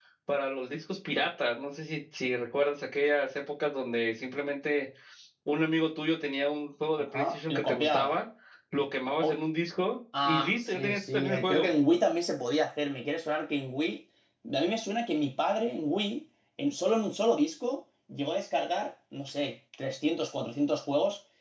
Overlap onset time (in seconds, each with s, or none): 7.0 s